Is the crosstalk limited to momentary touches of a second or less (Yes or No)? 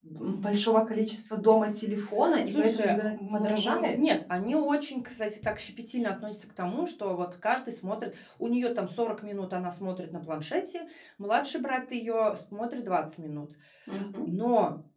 No